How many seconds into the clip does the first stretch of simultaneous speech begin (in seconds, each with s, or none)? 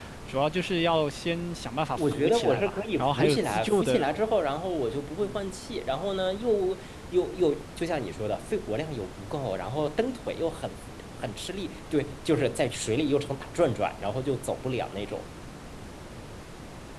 1.9 s